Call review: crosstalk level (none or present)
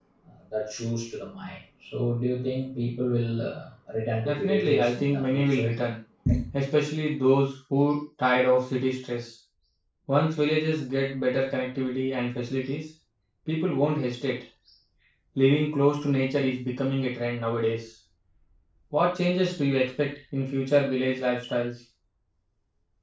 present